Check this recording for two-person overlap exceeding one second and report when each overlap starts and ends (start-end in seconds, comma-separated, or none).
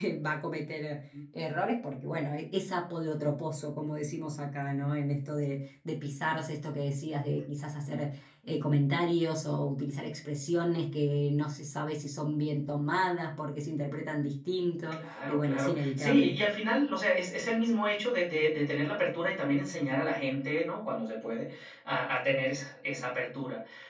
14.9-16.4